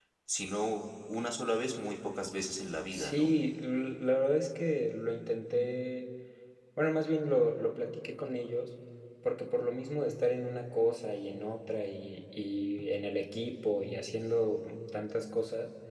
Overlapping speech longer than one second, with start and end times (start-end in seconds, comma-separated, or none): none